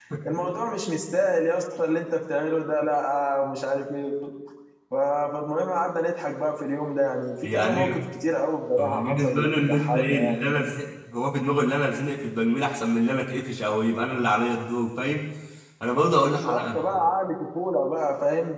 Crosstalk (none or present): present